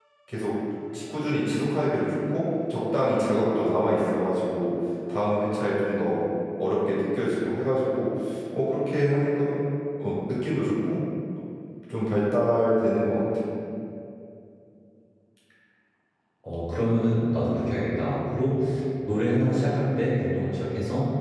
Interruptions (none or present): none